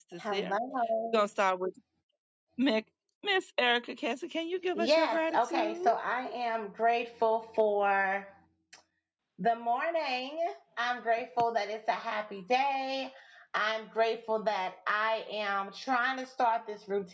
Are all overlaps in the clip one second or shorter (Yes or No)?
No